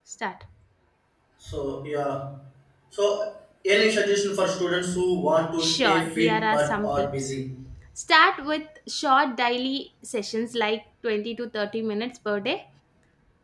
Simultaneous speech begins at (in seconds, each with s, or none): 5.6 s